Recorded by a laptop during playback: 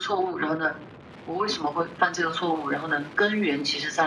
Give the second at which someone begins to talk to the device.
none

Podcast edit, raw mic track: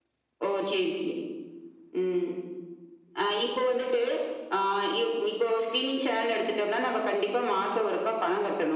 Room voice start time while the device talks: none

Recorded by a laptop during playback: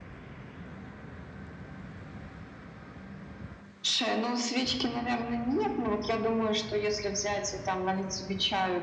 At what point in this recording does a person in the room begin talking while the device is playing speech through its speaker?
none

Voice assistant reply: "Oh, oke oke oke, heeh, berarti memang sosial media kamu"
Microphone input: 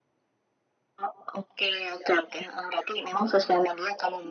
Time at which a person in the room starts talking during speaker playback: none

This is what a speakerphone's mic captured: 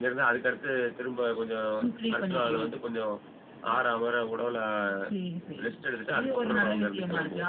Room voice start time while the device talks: none

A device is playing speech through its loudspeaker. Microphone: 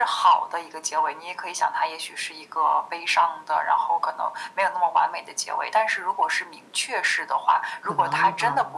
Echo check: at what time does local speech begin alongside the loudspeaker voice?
8 s

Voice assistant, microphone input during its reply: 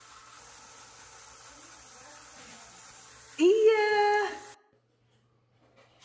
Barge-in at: 3 s

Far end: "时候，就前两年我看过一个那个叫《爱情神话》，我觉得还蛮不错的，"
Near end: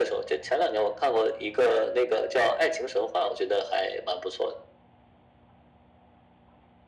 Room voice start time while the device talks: none

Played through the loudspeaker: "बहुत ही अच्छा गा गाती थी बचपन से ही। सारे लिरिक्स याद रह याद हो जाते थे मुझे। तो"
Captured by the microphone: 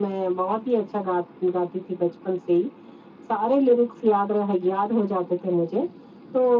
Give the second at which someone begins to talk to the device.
none

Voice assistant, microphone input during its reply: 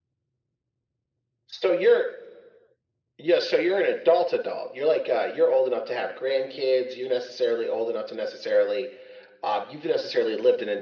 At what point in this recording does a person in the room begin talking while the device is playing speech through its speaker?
none

